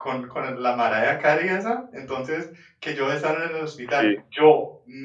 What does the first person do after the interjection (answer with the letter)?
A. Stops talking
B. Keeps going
B